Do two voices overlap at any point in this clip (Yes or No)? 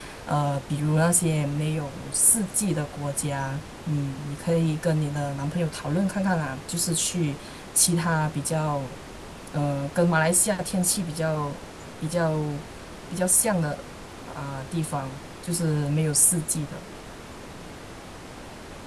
No